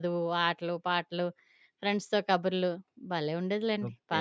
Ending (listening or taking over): taking over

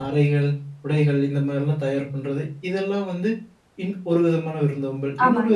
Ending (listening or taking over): listening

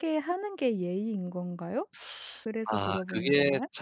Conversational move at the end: taking over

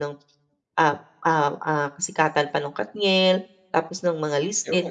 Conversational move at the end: listening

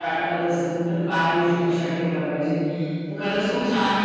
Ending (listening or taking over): listening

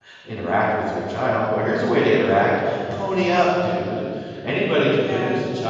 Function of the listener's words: listening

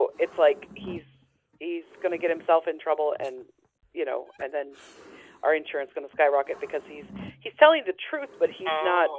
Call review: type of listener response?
listening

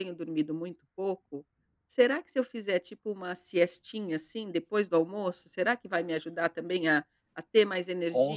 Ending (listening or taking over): taking over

